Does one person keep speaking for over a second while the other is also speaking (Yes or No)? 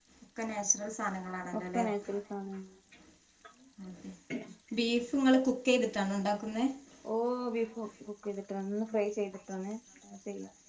No